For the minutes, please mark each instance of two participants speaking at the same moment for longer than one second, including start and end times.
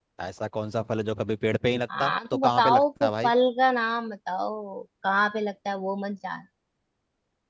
2.0-3.3

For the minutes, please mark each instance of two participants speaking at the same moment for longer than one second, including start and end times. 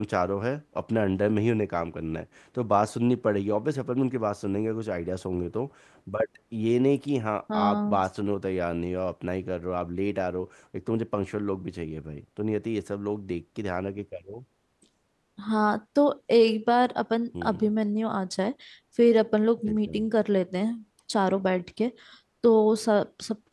none

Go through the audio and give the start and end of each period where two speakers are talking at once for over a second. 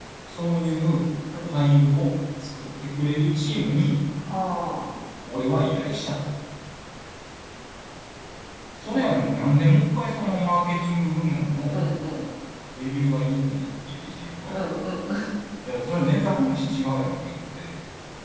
none

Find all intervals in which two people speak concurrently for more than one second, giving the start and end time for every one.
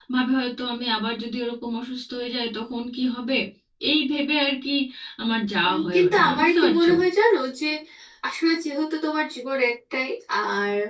5.6-6.9

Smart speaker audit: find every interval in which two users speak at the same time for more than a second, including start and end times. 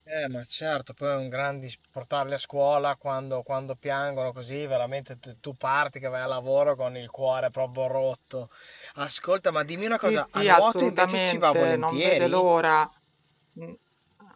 10.0-12.4

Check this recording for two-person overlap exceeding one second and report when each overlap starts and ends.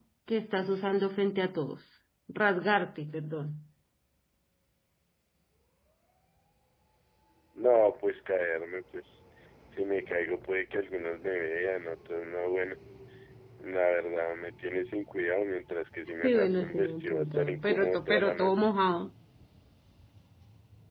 16.2-18.7

